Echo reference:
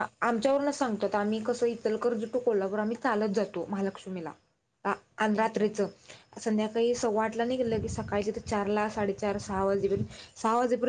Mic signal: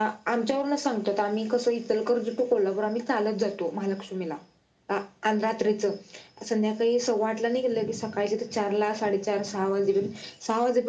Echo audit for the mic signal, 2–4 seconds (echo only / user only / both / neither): echo only